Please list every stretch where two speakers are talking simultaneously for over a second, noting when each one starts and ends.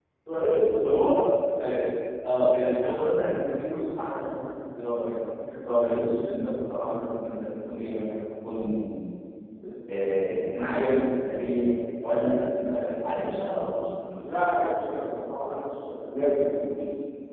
none

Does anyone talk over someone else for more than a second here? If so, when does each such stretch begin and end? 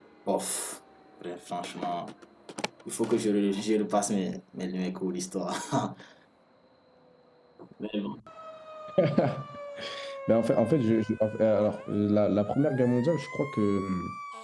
none

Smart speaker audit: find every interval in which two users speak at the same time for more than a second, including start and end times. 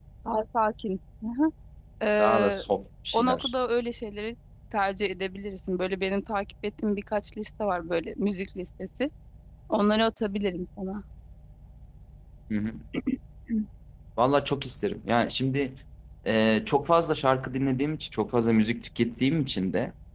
none

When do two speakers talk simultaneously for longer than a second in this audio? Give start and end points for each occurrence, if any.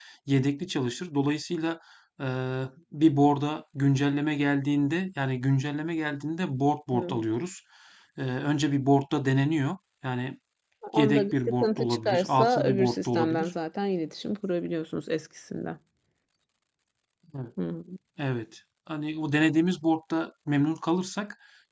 11.0-13.5

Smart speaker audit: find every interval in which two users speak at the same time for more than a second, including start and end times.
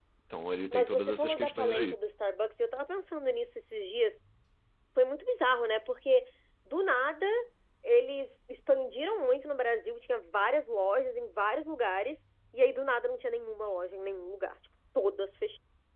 0.7-1.9

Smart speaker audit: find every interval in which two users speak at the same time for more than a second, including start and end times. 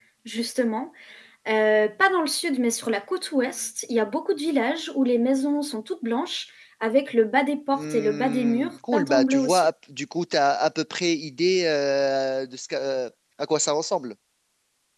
7.7-9.7

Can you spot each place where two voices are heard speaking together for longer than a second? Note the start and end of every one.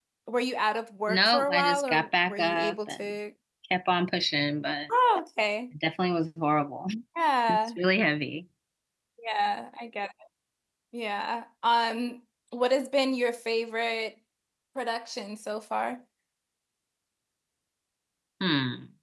1.1-3.0

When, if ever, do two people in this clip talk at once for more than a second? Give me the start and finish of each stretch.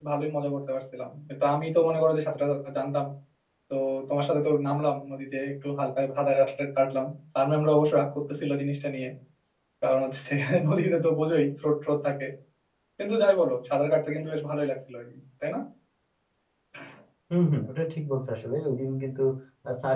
none

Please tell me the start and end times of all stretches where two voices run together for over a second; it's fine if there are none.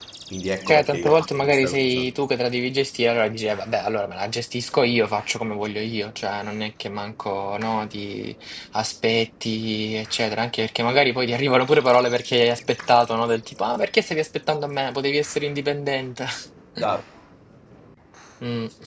0.7-2.1

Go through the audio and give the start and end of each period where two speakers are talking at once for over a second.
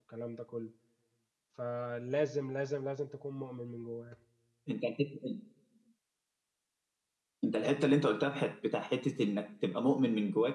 none

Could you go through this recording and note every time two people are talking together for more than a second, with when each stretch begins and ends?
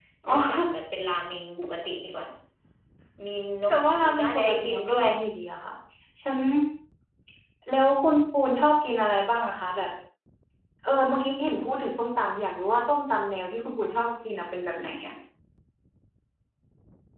3.7-5.1

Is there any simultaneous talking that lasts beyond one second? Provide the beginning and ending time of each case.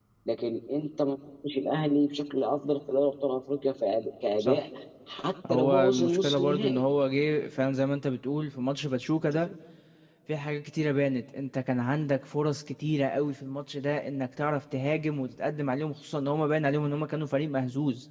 5.5-6.8

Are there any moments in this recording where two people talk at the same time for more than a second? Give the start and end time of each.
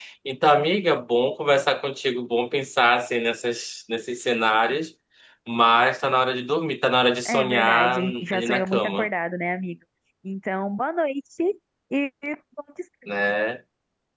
7.2-9.1

